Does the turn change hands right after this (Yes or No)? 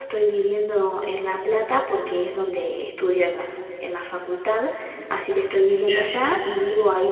No